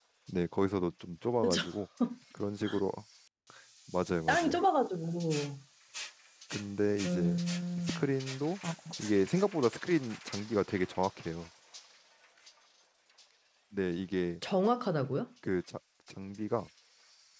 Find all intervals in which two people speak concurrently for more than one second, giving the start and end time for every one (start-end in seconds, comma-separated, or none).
none